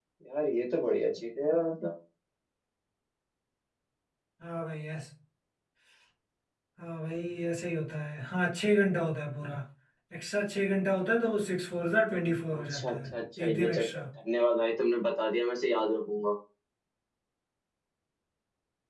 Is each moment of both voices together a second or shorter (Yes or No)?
No